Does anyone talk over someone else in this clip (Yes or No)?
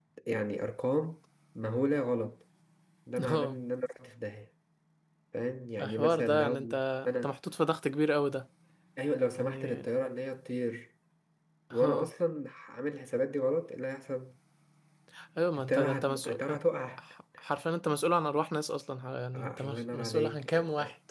Yes